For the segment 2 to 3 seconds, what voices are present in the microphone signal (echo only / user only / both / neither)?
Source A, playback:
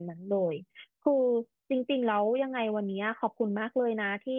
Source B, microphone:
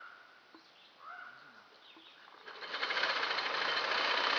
neither